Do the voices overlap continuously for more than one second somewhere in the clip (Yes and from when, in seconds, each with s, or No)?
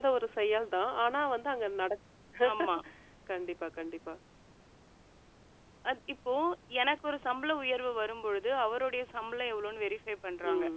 No